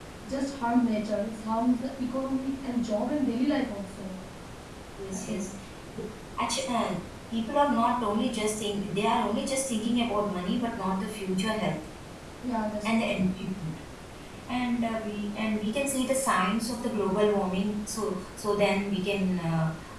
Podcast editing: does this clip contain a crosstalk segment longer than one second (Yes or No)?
No